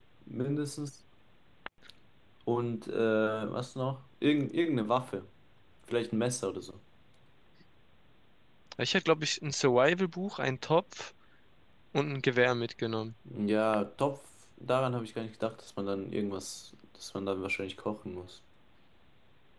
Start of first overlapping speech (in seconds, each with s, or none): none